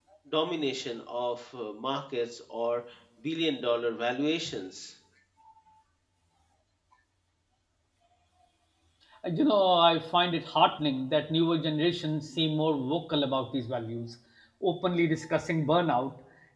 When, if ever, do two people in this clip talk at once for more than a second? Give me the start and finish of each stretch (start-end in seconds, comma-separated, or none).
none